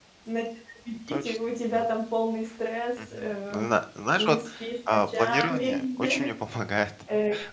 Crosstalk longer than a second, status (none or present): present